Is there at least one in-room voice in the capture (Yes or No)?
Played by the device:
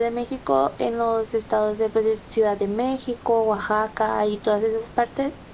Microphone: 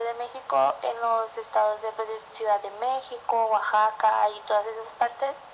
No